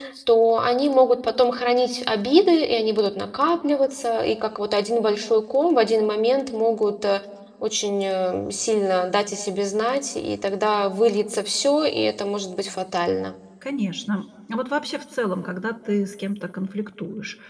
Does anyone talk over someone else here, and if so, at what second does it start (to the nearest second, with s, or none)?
none